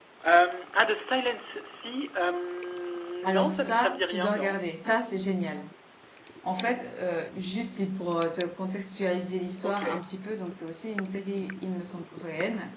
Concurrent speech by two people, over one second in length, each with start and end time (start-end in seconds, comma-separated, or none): 3.2-4.6